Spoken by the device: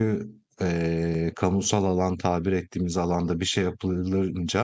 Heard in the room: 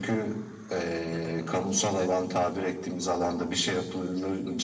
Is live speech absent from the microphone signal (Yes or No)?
No